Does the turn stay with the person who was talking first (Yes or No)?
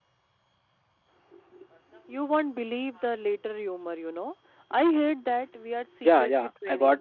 No